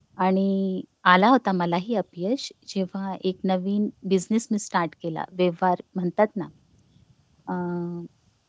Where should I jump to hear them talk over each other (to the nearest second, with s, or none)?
none